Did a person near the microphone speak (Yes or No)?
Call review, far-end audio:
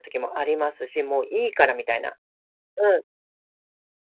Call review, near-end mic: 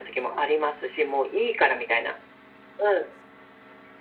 No